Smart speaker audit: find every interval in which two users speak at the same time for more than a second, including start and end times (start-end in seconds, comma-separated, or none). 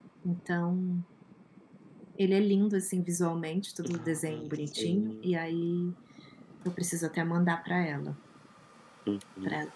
4.0-5.2